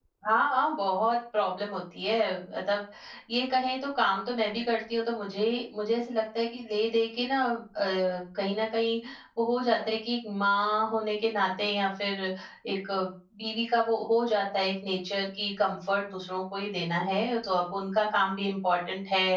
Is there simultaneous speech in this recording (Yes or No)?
No